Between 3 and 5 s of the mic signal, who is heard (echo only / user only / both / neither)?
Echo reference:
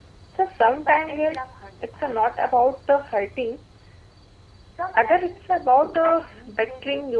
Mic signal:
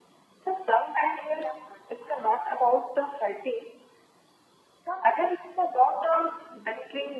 echo only